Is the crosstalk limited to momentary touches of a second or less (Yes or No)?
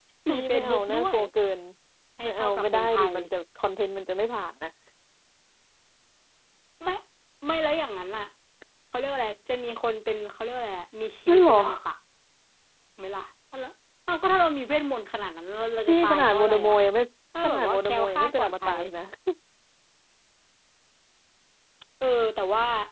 No